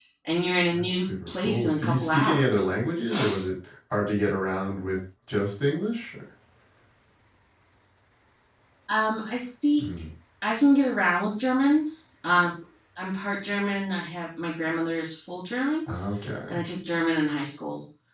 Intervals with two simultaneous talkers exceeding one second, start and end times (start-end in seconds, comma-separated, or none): 0.7-2.7